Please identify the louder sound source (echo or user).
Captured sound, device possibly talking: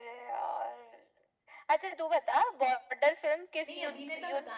echo